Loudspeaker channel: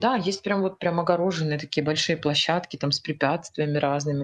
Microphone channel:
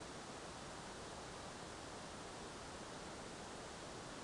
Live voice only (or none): none